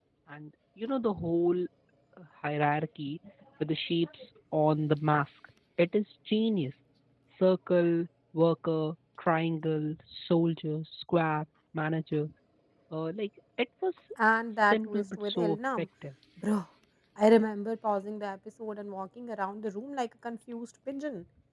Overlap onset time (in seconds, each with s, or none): 14.5 s